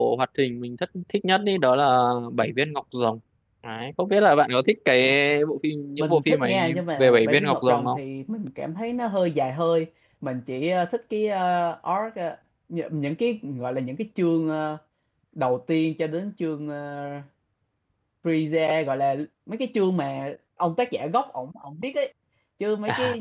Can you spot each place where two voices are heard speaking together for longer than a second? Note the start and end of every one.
6.0-8.0

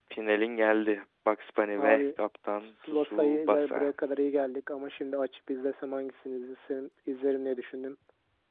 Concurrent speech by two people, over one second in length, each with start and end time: 2.6-3.9

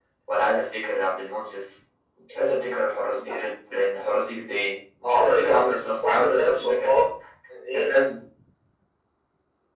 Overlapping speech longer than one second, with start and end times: 5.0-7.0

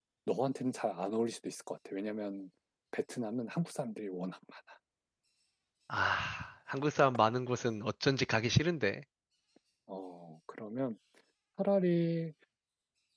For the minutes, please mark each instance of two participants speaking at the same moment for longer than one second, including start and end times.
none

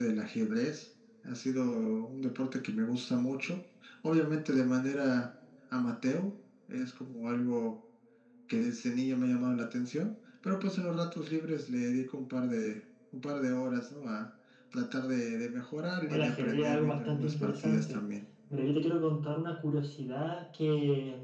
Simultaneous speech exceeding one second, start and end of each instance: 16.1-18.0

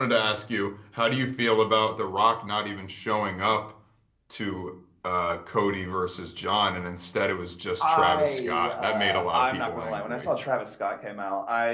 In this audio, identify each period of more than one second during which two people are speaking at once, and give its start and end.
7.8-10.3

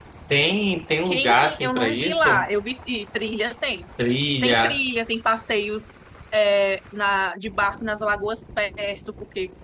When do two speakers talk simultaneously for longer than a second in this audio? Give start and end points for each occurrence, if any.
1.1-2.4

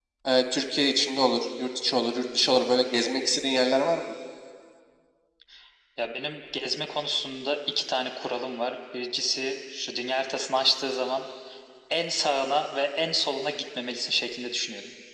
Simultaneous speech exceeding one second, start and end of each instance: none

